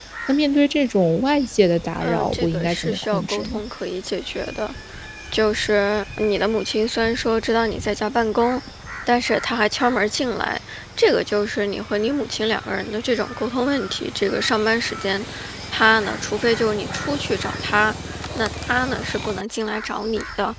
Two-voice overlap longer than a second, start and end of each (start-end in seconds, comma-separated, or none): 2.0-3.6